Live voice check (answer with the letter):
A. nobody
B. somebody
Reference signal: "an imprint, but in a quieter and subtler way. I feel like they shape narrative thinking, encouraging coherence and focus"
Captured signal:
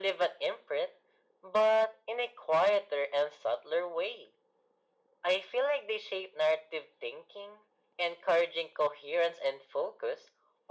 A